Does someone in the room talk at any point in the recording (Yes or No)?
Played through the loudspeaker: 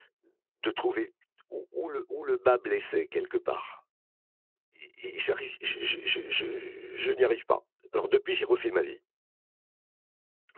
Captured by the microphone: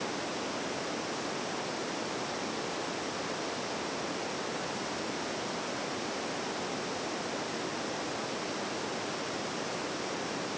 No